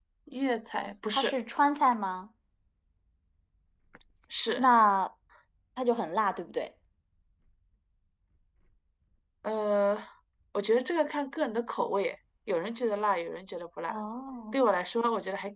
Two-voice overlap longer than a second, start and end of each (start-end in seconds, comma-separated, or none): none